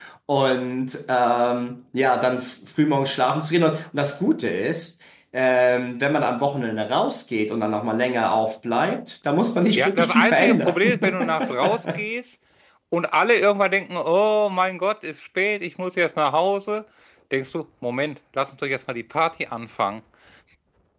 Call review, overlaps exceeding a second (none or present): present